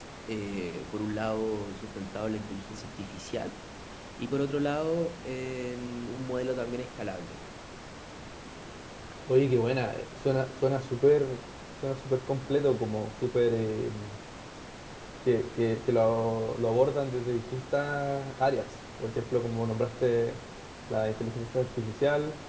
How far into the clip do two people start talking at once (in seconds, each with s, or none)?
none